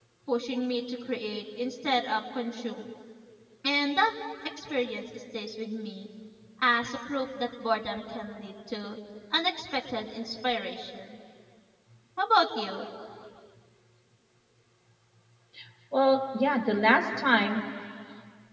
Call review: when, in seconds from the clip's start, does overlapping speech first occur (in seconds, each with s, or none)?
none